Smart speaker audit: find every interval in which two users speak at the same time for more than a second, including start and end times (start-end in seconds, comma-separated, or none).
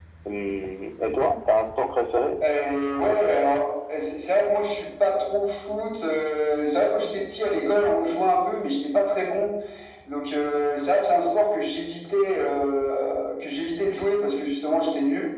none